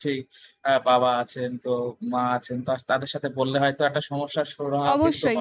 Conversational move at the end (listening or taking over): taking over